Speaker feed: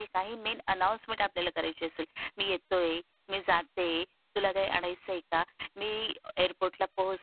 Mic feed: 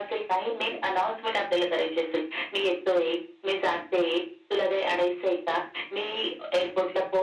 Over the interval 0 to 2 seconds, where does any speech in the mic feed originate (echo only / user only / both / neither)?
echo only